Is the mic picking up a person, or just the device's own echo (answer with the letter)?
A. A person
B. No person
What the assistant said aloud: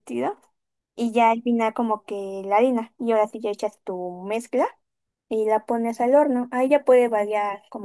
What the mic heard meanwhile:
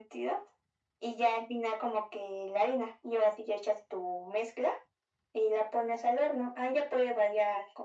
B